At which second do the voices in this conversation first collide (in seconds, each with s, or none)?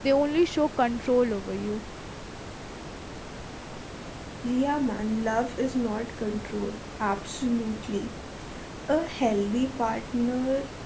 none